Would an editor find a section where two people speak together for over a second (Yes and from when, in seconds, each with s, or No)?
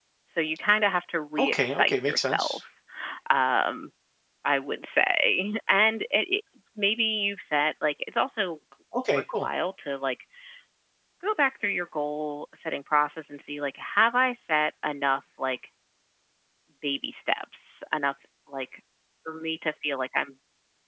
Yes, from 1.4 s